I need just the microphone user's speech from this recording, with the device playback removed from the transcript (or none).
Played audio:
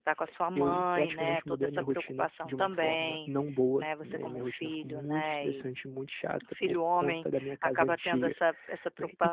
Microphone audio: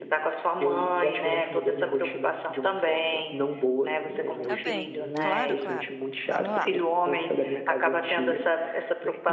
tá bem. Claro, claro. Vamos lá.